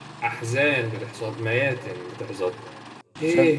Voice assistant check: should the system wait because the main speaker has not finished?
Yes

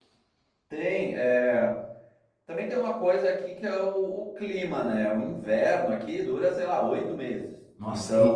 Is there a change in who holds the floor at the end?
Yes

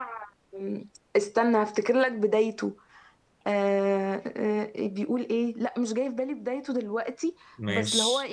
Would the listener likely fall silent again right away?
Yes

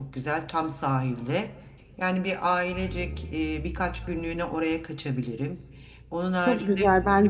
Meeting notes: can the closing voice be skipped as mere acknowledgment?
No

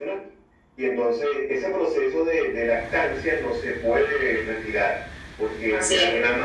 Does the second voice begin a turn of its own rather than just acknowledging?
No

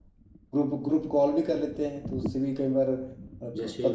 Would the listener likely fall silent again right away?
No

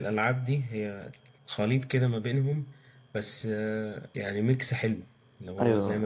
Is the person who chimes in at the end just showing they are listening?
No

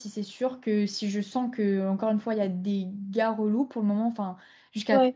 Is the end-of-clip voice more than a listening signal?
No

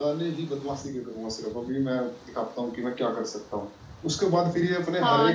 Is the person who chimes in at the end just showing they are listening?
Yes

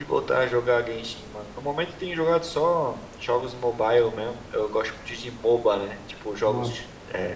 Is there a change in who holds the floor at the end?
No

